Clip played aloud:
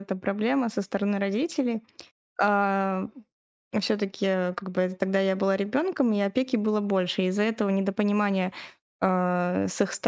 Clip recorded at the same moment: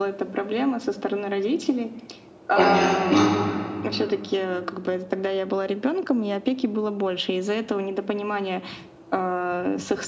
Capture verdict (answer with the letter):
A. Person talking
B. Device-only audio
A